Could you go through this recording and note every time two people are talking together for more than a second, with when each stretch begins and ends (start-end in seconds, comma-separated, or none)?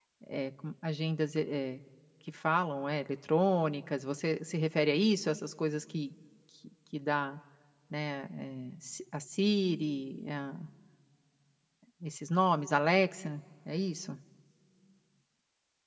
none